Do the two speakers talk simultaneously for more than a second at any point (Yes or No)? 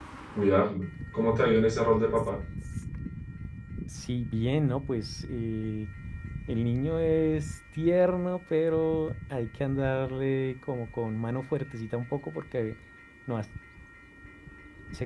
No